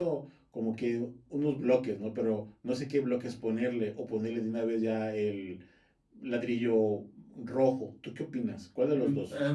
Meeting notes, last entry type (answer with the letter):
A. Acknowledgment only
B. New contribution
B